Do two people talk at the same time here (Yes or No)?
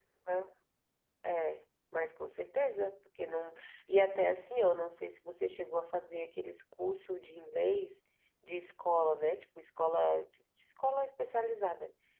No